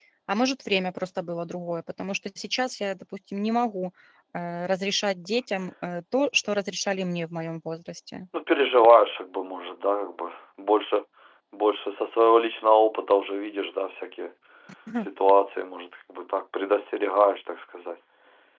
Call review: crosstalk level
none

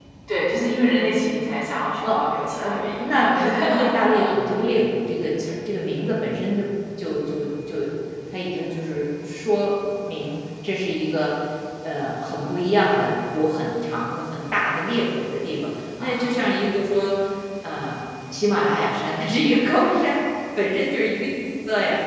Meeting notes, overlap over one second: present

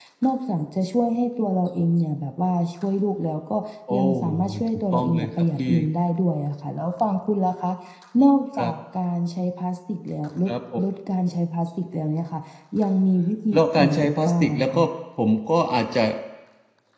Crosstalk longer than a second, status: present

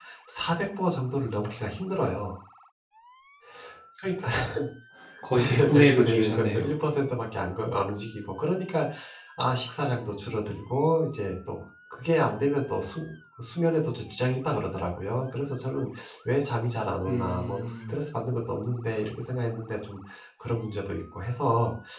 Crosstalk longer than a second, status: present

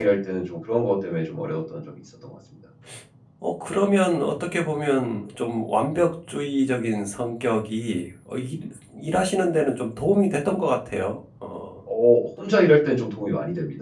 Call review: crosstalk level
none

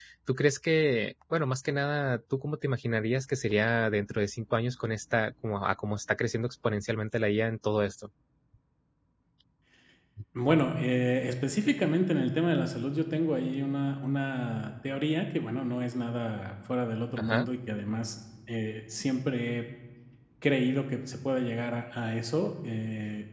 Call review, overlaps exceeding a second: none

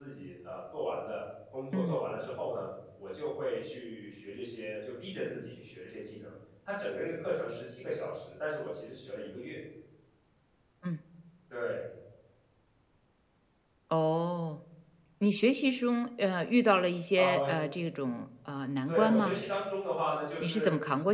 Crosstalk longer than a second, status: none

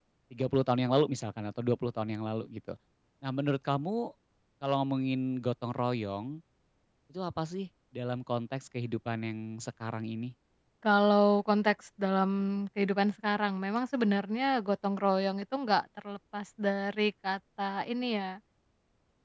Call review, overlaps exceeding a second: none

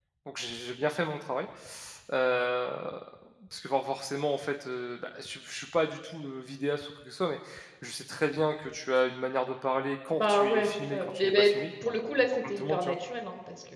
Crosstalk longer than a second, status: present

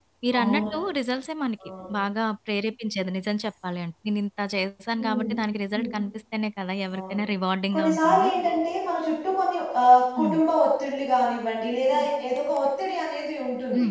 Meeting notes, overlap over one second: none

